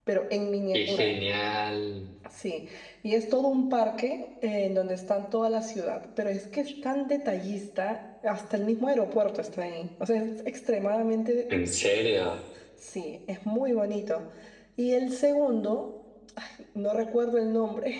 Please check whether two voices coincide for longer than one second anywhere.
No

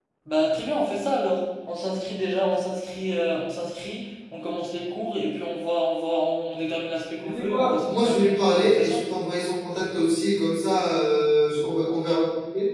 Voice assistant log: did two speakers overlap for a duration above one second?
Yes, from 7.2 s

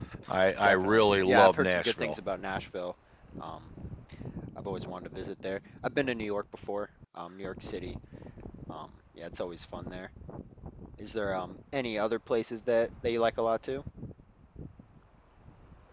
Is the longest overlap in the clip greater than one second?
Yes, from 0.6 s

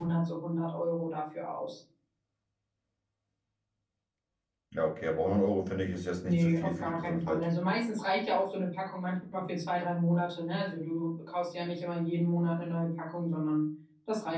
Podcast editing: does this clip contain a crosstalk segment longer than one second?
Yes, from 6.2 s

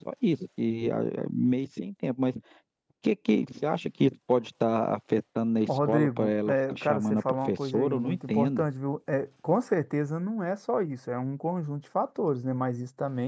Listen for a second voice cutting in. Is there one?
Yes, from 5.7 s

